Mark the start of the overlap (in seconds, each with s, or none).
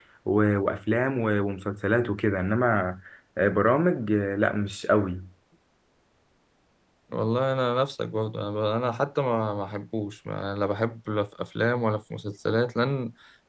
none